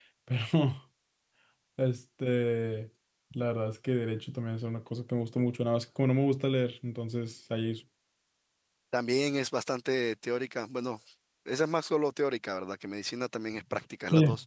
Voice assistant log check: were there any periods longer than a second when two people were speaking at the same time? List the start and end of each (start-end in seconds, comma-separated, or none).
none